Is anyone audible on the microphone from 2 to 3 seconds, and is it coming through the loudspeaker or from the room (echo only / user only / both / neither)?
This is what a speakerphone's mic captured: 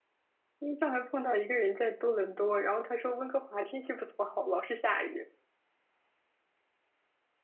user only